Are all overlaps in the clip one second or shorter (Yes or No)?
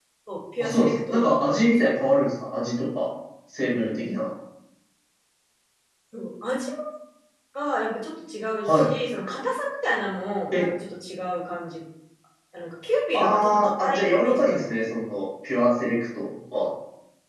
No